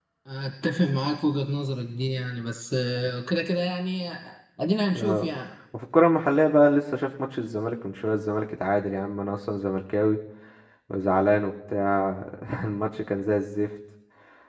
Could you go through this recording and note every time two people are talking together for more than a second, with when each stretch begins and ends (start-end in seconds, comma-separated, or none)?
none